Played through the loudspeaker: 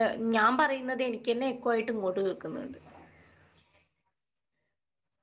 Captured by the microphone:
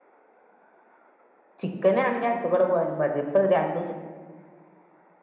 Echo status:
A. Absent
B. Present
A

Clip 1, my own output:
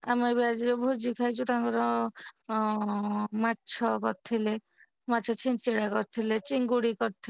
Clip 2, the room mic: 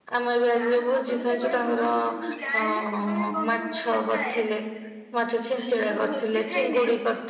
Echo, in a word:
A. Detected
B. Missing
A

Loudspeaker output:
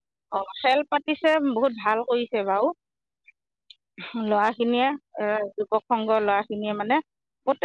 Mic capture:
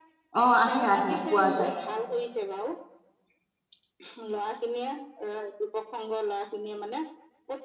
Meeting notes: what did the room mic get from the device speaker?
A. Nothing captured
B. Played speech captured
B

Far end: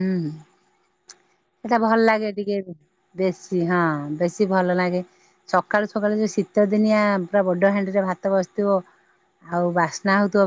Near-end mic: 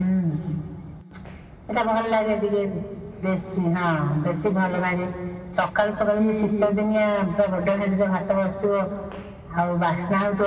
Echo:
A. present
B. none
A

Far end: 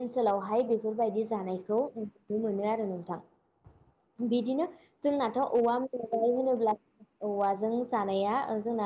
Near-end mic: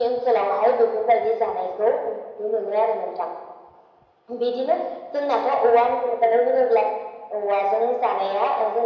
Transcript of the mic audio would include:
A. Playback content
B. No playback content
A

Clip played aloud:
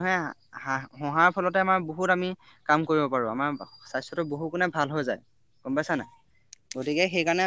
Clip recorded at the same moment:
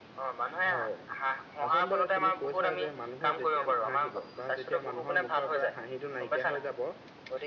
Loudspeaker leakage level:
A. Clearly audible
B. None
A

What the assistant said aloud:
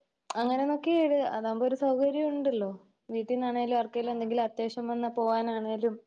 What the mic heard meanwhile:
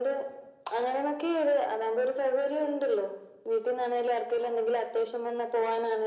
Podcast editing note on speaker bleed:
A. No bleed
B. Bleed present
B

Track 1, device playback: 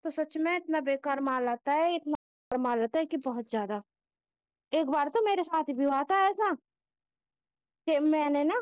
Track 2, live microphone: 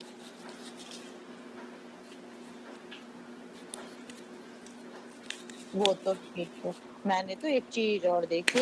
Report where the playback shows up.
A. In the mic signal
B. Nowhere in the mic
B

